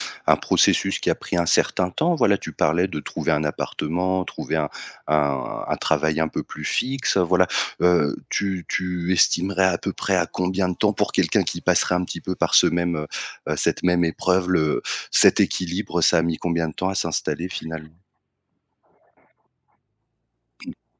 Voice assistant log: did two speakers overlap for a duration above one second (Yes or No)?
No